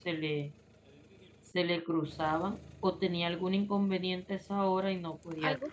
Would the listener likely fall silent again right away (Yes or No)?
No